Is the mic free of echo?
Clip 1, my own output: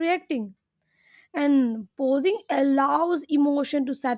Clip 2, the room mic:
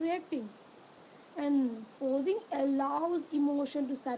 No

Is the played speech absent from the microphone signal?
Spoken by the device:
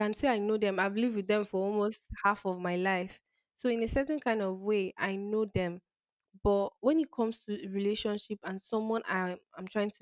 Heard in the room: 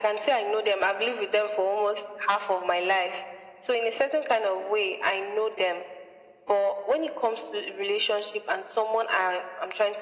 No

